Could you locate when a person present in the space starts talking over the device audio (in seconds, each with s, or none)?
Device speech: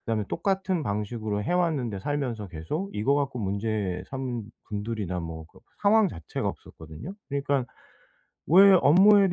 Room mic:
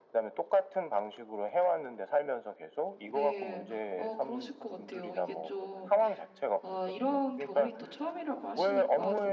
3.1 s